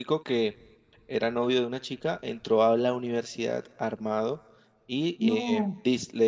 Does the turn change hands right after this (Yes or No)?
No